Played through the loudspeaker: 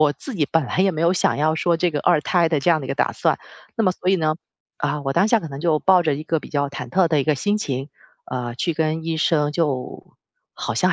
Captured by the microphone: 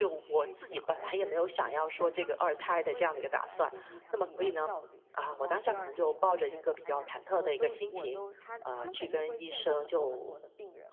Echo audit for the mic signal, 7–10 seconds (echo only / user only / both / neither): both